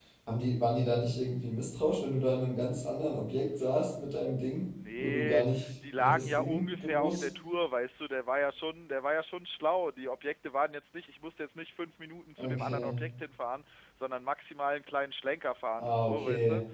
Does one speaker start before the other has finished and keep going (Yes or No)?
Yes